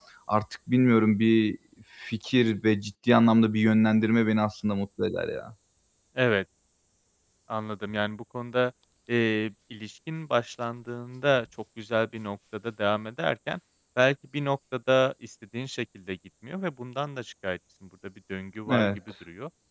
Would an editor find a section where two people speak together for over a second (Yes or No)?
No